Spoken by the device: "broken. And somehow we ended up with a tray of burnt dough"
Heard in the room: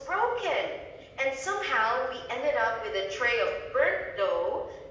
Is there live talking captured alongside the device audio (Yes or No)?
No